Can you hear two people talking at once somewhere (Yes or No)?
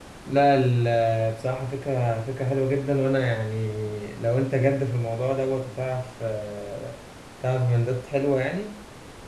No